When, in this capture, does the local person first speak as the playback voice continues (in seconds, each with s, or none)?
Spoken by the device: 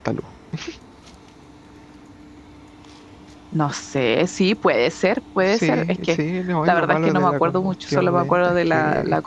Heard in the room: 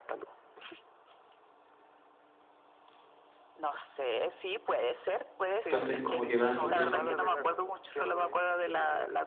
5.6 s